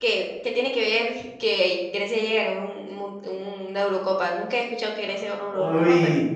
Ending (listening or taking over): taking over